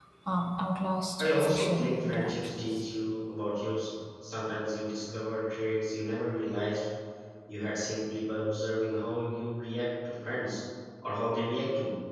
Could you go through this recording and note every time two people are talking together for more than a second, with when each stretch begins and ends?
1.2-2.8

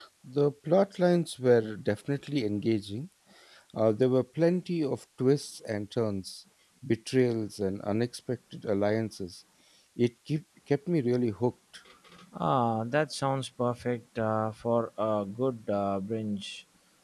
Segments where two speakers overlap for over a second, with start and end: none

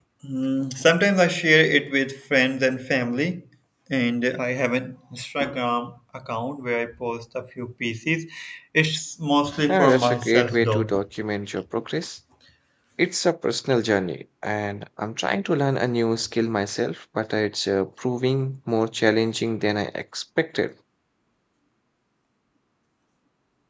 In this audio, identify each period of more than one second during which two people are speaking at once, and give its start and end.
9.7-10.9

